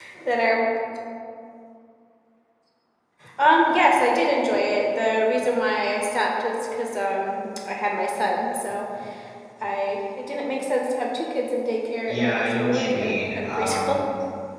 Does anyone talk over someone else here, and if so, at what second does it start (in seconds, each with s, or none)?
12.1 s